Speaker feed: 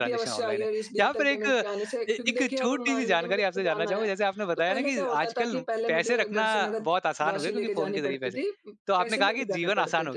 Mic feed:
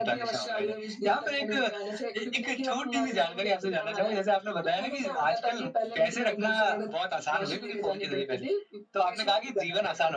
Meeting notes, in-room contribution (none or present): none